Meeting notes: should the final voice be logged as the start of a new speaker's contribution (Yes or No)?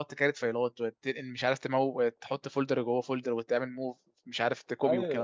Yes